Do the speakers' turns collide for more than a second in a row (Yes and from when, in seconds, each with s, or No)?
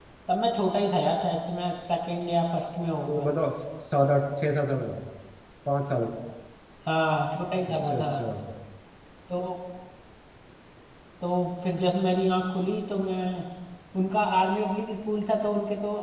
No